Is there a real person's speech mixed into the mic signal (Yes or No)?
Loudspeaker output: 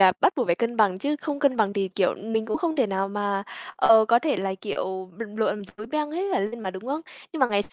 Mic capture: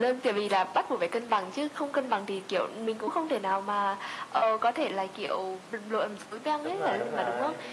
Yes